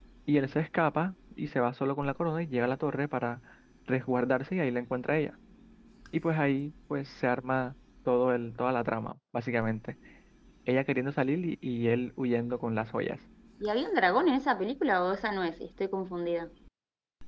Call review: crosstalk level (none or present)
none